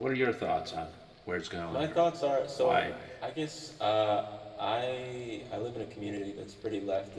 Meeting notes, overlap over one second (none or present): none